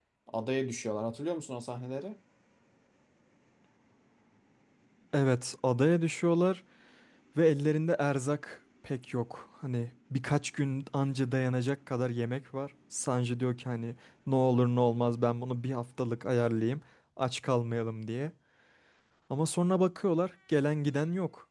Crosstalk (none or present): none